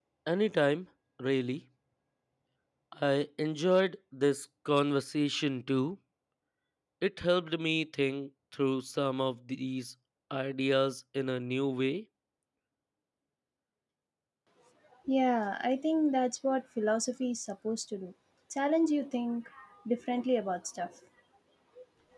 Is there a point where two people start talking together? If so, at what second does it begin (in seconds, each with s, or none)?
none